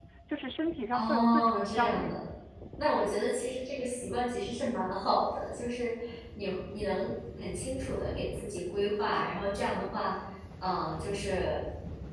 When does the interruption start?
0.9 s

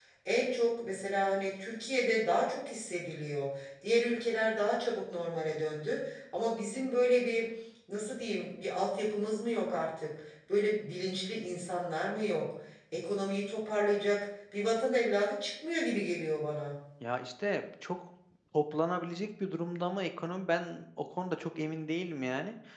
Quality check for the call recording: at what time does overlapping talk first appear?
none

